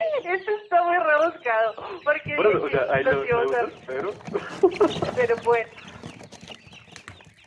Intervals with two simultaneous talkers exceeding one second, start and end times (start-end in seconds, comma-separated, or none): 2.3-3.7